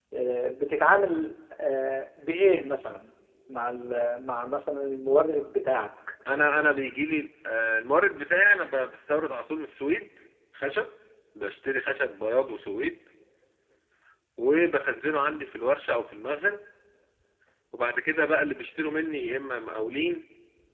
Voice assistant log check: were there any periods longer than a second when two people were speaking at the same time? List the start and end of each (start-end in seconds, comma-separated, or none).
none